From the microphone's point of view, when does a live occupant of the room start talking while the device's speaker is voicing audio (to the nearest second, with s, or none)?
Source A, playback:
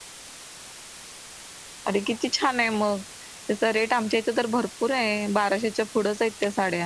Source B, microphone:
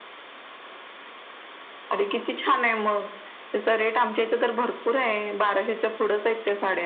none